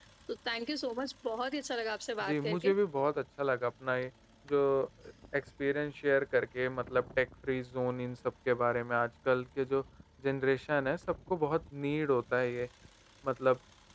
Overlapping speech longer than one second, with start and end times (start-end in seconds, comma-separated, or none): none